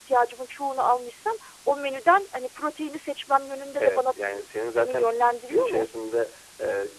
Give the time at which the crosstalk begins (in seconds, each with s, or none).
3.8 s